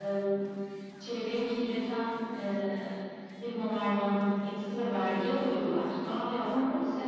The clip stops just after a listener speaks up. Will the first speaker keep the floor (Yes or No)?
Yes